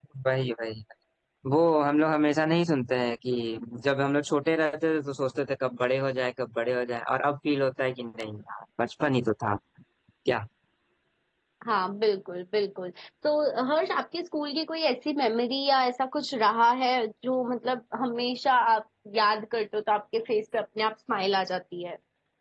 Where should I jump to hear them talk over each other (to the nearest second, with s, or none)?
none